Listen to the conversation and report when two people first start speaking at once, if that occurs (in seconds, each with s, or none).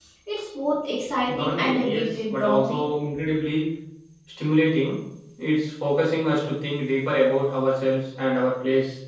1.3 s